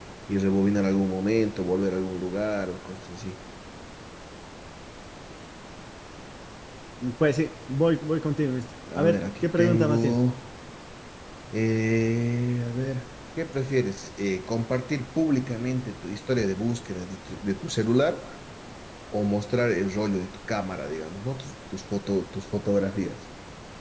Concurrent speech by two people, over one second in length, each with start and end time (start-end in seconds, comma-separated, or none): 8.9-10.2